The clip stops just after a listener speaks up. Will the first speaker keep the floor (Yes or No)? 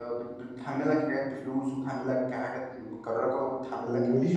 No